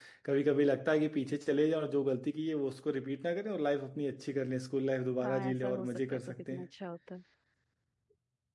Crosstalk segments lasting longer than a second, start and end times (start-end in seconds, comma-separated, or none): 5.2-6.7